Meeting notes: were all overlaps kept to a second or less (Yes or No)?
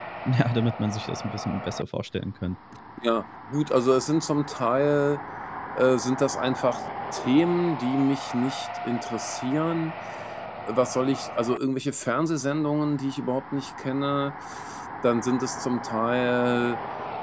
Yes